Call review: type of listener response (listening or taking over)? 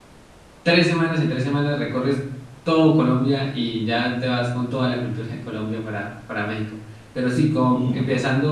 listening